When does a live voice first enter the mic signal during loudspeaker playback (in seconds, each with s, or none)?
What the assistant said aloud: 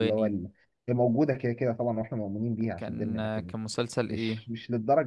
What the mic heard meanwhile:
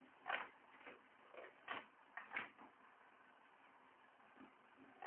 none